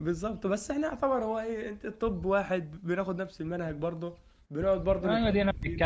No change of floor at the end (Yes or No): No